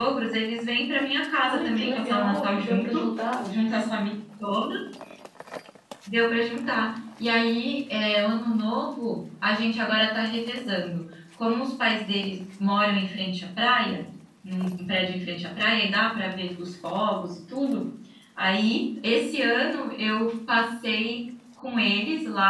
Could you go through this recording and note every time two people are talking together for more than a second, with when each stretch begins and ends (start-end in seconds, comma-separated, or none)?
1.5-3.0